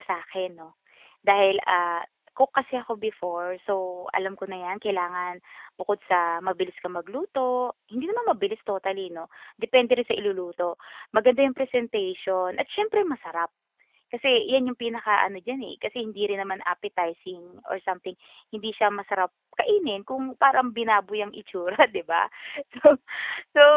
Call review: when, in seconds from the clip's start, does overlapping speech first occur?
none

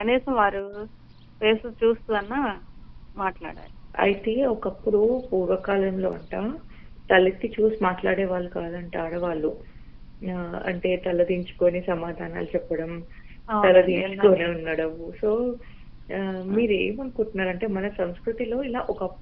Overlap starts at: 14 s

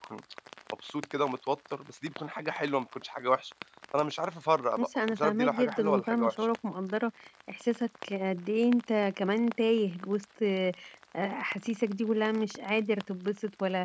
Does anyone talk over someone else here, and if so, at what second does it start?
5 s

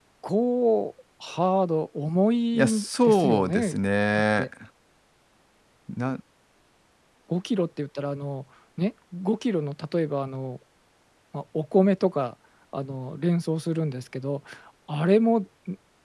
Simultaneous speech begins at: 3 s

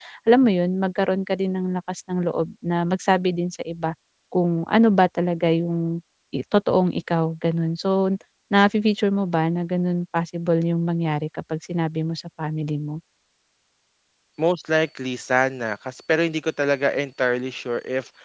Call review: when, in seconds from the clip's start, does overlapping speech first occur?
none

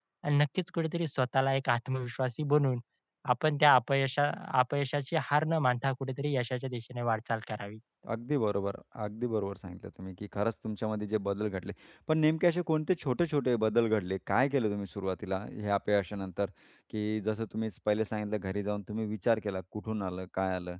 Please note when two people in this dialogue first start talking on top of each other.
none

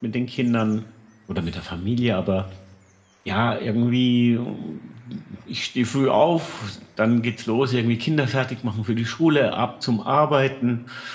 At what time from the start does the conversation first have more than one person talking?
none

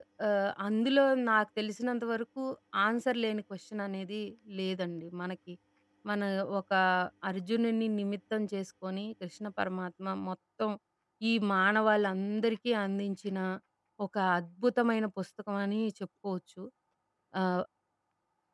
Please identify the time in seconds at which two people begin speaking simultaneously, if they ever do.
none

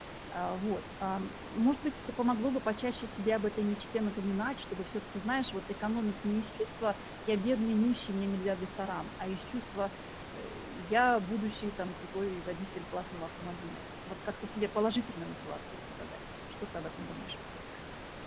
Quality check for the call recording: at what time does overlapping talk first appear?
none

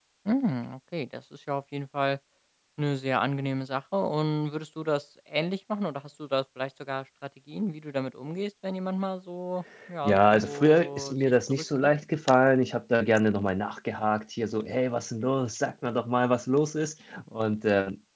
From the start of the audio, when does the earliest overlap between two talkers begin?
10 s

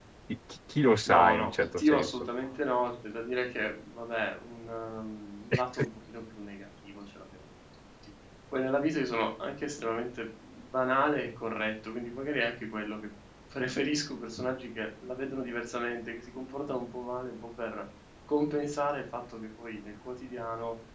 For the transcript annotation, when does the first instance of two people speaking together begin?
1 s

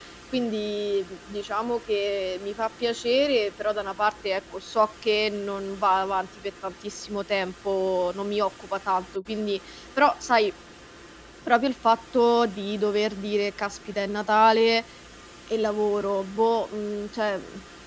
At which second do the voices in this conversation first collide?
none

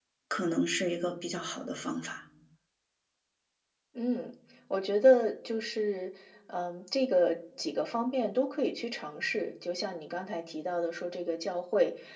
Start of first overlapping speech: none

